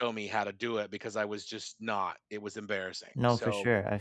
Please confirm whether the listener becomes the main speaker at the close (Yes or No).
Yes